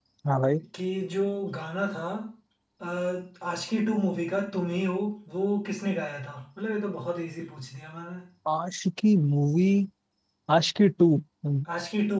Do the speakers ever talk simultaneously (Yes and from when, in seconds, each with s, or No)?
No